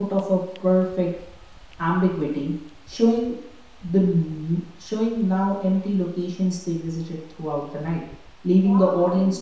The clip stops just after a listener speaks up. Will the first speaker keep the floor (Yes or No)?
No